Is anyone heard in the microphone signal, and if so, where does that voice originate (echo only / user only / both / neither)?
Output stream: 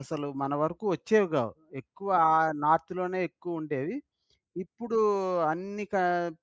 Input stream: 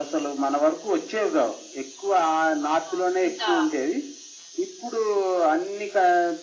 both